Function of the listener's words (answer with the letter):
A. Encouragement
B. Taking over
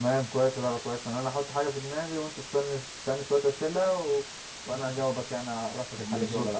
B